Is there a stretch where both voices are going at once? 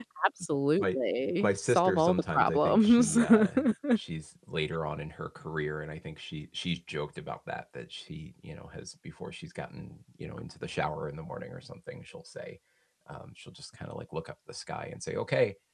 Yes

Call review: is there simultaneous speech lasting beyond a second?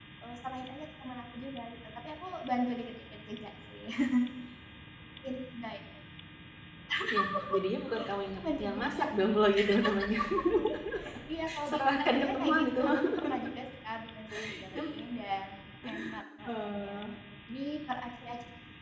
Yes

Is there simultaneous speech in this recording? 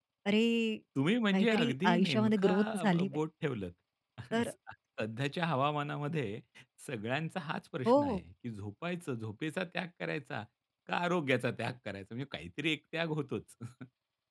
Yes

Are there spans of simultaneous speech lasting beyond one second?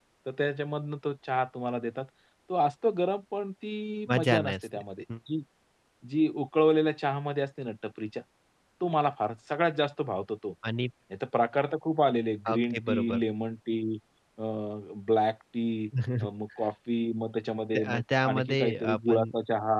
Yes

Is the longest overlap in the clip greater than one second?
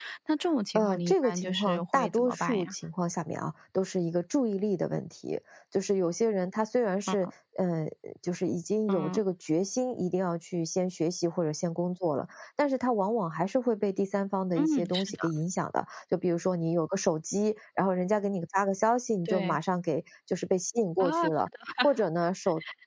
Yes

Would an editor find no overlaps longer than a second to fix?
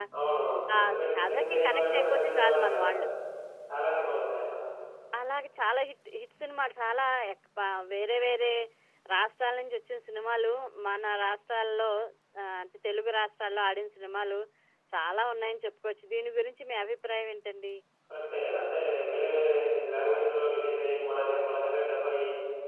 No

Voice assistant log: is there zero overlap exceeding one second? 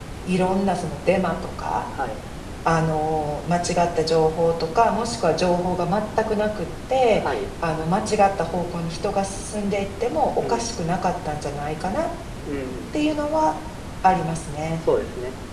Yes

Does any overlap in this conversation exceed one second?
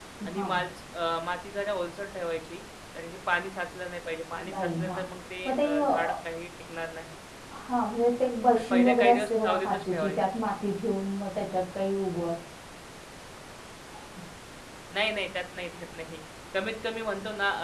Yes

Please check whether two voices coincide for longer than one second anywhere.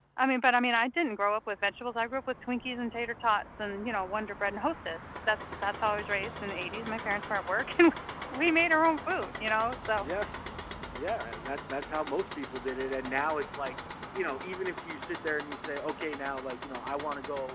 No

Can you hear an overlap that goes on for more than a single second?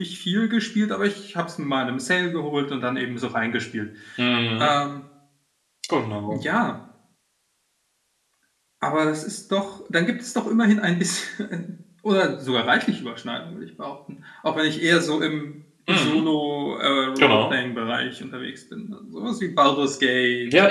No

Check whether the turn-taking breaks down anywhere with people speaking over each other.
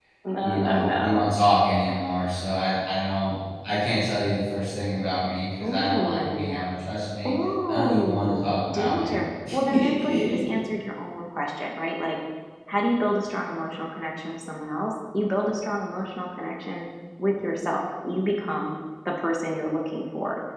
Yes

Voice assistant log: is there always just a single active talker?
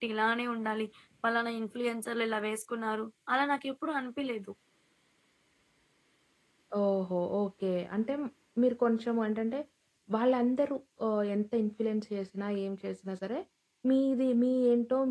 Yes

